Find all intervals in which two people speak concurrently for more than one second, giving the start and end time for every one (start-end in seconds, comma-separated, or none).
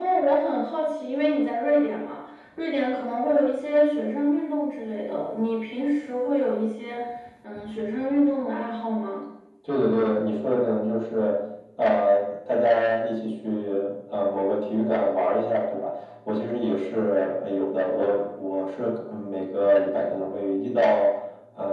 none